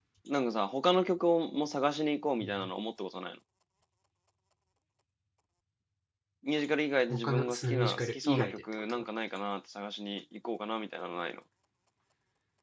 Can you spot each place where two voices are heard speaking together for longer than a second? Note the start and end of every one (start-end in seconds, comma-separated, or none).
7.1-9.0